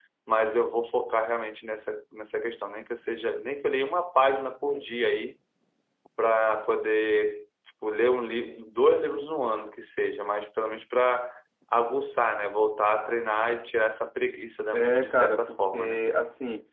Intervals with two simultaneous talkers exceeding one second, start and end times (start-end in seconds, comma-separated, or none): 14.7-16.0